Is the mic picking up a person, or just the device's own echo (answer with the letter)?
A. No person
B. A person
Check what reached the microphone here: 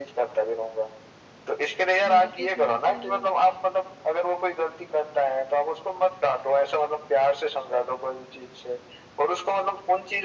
B